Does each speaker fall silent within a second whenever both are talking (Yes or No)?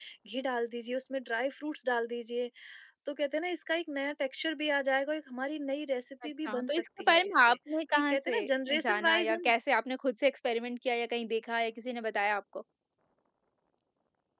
No